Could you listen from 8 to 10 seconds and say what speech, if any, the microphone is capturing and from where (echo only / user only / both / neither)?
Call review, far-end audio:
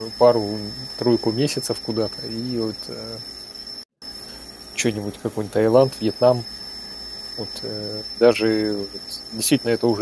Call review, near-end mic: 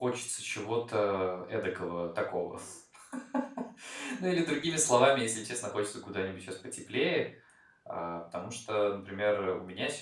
user only